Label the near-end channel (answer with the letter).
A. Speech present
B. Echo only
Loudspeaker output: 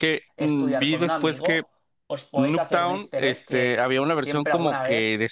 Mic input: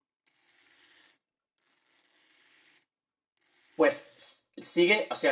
A